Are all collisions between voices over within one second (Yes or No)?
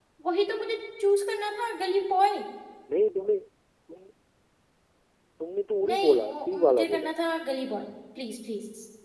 No